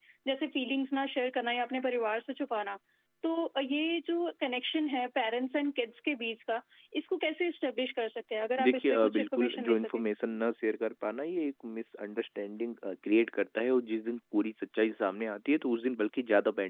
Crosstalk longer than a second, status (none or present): present